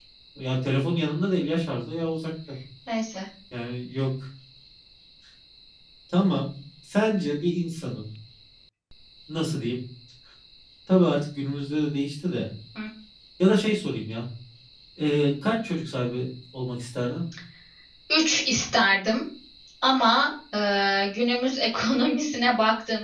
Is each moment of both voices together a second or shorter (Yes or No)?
Yes